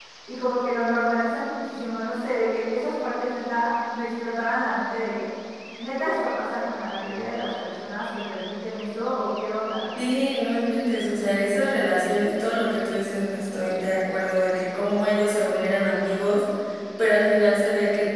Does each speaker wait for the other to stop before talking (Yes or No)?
Yes